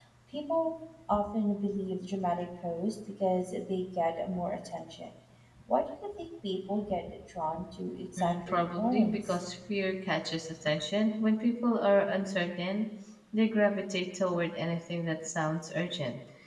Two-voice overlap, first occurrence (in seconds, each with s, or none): 8.2 s